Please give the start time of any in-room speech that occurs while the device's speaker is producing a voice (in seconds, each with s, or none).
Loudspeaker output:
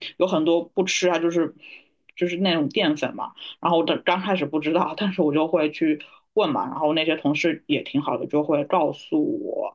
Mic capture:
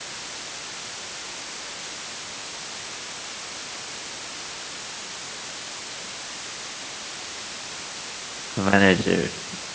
8.5 s